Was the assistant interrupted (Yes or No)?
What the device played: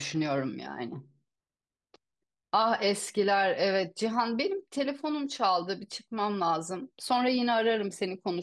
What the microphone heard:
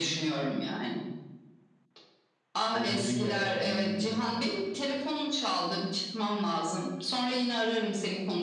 Yes